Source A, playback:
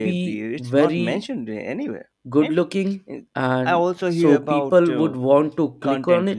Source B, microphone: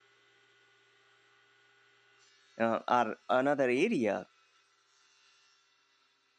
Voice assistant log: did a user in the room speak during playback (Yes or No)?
Yes